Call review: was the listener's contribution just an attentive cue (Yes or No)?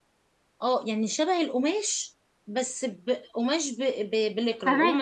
Yes